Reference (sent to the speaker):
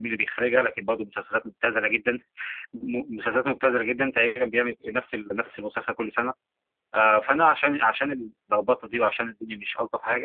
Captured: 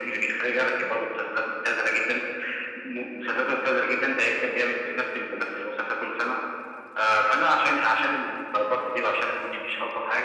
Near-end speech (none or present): none